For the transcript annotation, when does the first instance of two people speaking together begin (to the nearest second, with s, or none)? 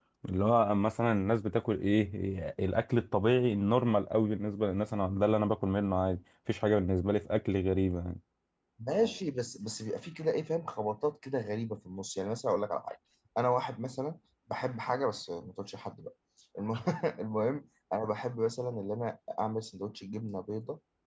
none